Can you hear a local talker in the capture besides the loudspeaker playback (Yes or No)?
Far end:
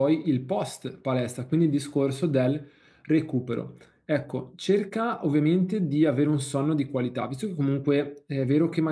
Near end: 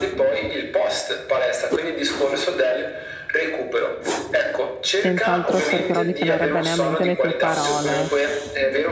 Yes